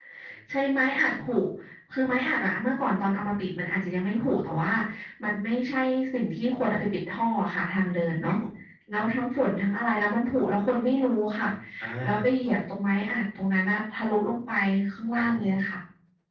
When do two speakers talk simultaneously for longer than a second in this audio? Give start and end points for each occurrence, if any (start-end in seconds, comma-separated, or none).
none